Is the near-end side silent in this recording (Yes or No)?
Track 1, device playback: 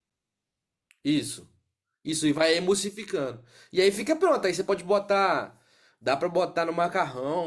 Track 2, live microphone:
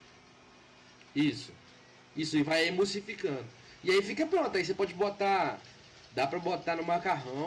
Yes